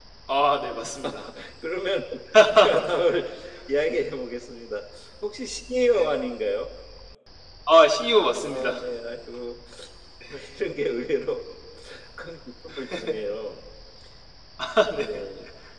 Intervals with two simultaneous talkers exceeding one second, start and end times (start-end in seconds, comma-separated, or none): none